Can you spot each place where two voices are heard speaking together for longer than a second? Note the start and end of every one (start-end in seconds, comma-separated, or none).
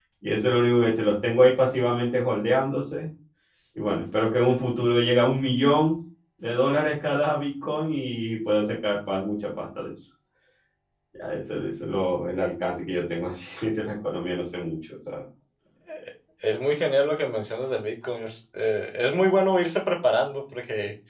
none